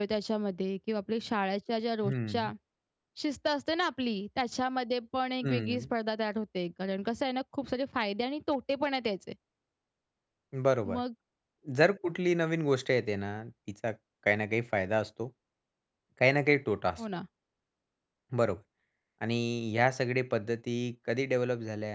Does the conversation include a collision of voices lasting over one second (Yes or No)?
No